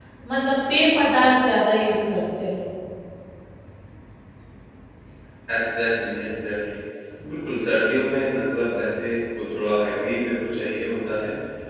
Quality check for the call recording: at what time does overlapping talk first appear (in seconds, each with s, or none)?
none